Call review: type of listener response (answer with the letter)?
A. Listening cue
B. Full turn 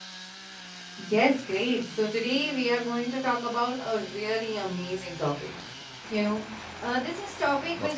A